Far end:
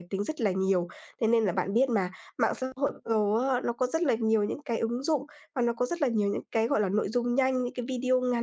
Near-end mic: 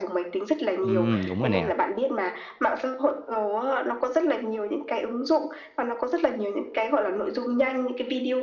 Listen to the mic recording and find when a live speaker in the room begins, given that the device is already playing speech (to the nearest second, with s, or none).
1 s